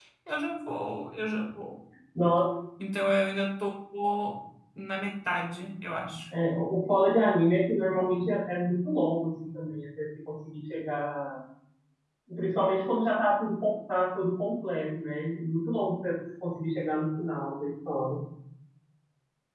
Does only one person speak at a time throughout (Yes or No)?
Yes